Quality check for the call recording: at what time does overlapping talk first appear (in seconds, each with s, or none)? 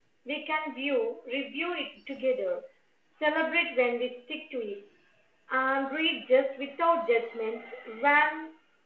none